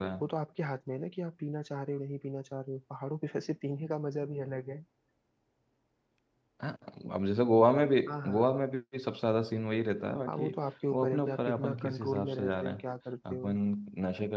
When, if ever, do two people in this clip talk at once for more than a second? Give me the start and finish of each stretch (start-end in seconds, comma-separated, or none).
10.9-12.8